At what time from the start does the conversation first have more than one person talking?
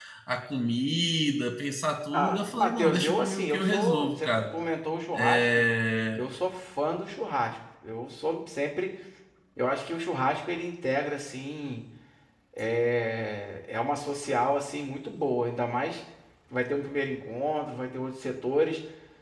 2.1 s

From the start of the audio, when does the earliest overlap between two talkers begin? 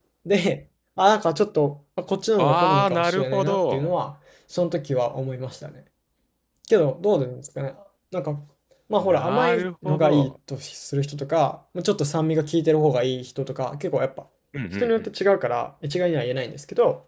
2.4 s

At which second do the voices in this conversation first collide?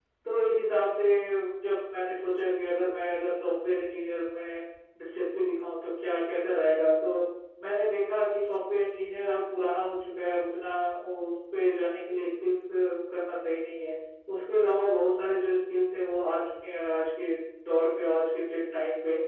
none

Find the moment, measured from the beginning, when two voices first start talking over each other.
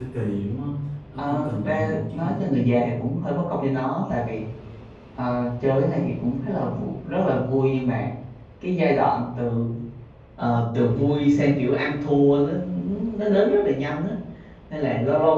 1.2 s

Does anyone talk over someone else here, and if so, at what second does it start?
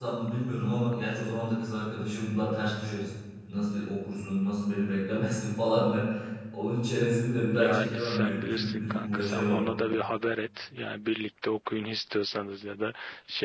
7.6 s

